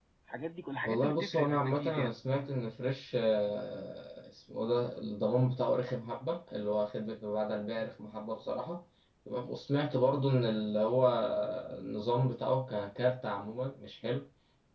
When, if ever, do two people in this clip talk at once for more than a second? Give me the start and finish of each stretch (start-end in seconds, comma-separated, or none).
0.8-2.1